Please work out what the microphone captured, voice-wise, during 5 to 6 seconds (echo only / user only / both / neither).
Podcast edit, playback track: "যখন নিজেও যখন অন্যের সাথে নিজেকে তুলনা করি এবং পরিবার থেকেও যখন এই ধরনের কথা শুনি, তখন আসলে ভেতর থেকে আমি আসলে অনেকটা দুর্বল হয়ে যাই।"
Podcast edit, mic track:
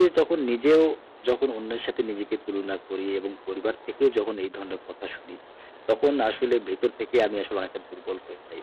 echo only